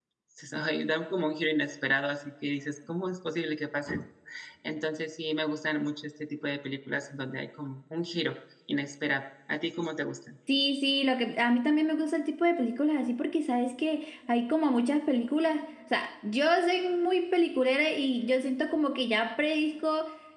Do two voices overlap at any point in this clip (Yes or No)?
No